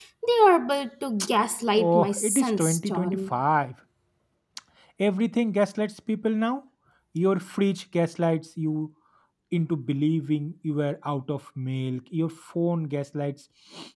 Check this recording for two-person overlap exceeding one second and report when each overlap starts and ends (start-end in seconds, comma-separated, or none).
1.8-3.3